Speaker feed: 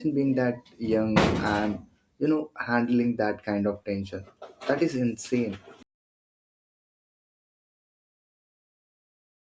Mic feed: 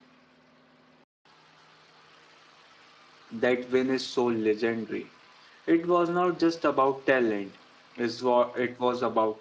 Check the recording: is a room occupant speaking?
Yes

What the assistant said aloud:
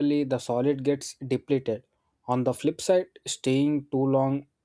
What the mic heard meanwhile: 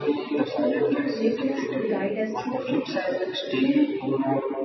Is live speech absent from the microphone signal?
No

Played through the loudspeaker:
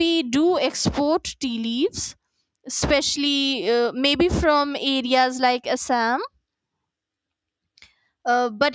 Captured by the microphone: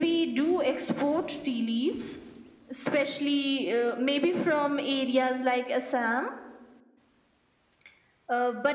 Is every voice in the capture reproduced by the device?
Yes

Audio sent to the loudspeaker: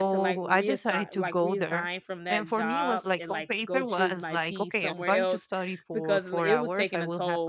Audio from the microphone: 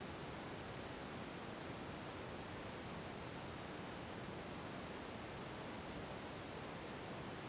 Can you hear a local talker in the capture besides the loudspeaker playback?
No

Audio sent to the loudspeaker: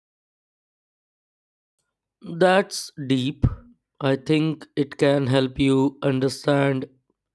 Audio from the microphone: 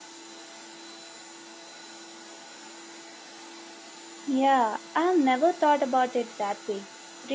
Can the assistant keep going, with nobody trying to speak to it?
No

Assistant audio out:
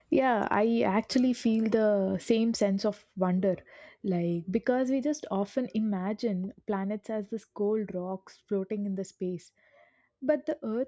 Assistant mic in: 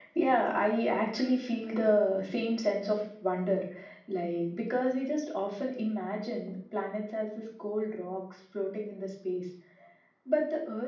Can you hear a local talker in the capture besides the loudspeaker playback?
No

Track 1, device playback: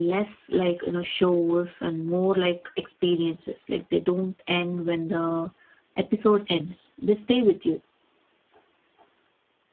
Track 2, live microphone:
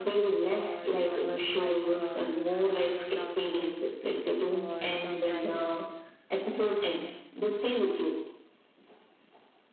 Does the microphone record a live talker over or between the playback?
Yes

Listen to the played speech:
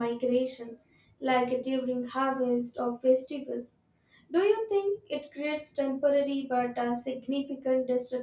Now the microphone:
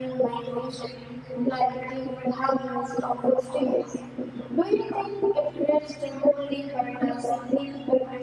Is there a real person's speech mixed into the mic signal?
No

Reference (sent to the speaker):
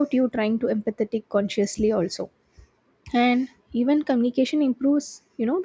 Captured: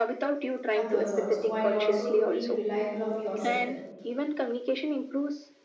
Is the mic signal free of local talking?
No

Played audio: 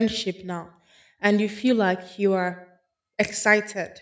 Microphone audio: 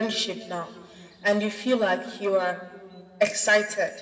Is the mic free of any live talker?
Yes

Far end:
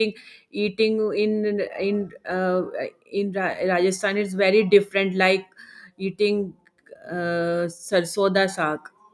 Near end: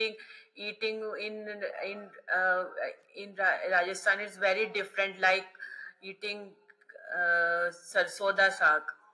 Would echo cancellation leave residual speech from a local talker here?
No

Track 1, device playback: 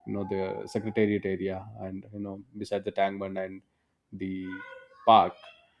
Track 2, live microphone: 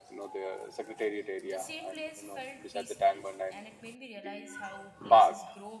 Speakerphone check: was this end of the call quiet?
No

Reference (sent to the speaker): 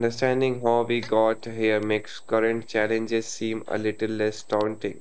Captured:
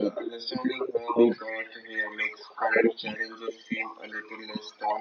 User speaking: No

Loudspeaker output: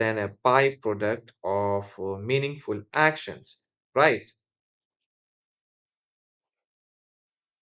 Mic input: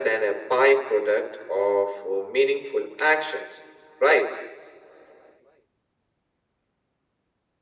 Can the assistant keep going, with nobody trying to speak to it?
Yes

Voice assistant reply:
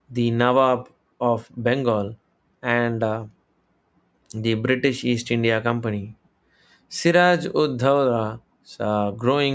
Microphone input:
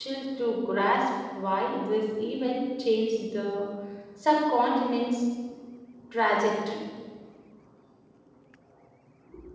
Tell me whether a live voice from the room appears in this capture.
Yes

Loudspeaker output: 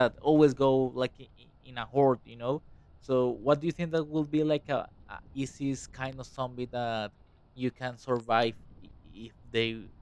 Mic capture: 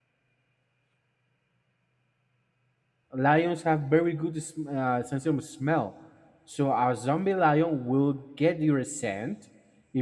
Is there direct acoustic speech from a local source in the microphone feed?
Yes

